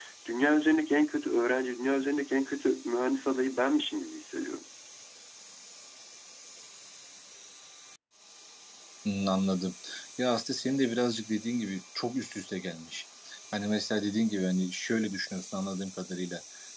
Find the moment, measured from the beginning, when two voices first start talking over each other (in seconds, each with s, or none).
none